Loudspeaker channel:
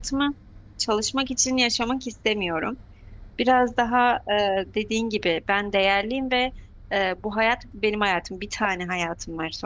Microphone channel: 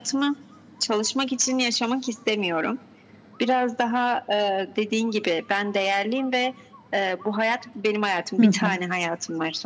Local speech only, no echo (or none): Hı hı.